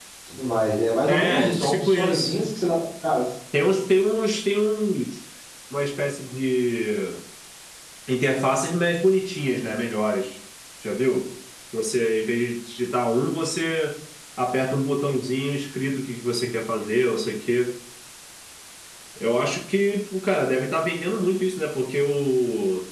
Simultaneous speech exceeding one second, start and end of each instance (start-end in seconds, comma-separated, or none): 1.1-2.4